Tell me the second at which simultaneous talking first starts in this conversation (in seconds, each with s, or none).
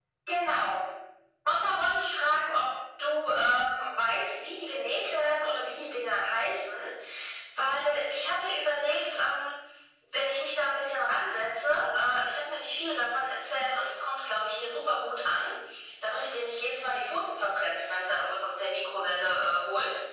none